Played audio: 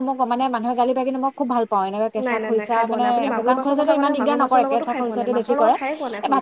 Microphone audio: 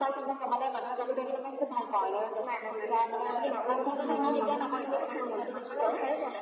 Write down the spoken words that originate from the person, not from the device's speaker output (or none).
উম উম